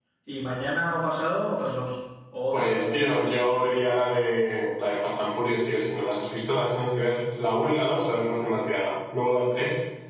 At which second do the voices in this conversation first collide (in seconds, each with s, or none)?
2.5 s